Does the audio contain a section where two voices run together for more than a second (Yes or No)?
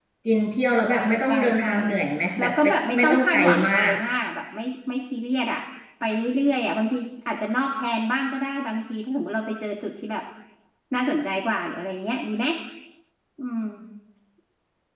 Yes